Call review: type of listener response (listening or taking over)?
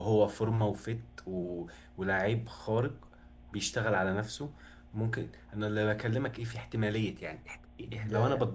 listening